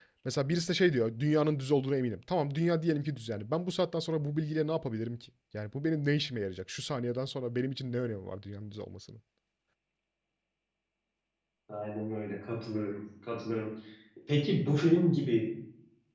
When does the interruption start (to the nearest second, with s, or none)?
none